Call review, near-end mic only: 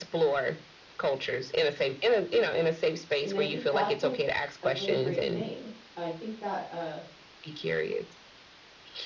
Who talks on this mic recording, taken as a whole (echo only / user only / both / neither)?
both